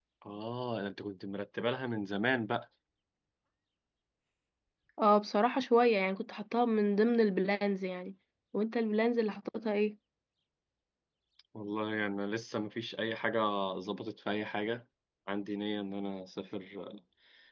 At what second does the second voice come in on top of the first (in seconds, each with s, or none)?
none